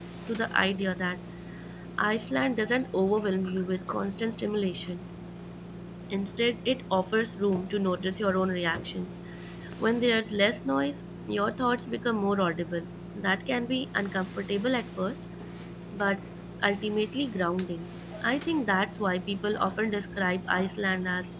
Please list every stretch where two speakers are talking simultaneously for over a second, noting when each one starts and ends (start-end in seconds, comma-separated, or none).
none